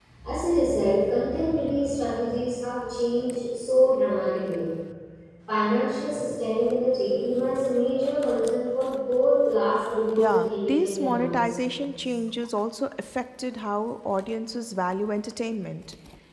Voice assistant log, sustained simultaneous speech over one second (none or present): present